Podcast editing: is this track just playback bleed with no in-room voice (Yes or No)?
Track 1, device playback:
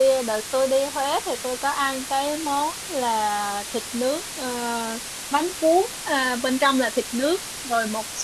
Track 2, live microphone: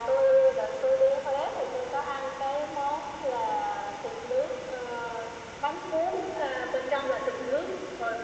Yes